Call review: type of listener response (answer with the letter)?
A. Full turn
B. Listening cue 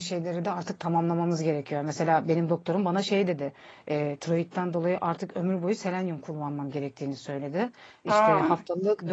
B